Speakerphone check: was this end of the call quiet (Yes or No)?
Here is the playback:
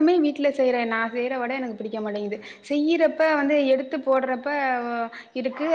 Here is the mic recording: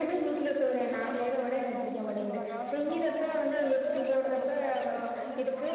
No